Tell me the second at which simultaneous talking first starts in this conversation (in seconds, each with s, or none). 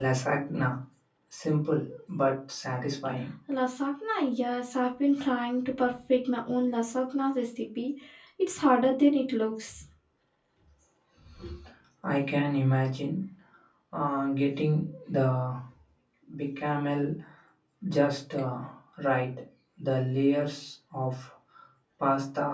none